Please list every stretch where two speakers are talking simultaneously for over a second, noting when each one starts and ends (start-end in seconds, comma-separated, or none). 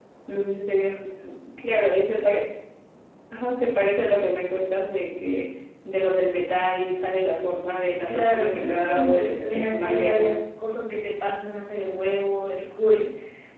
8.1-10.3